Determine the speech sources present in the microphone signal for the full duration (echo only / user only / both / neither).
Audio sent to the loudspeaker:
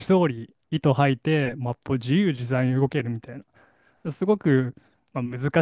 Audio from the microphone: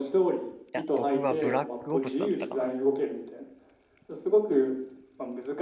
both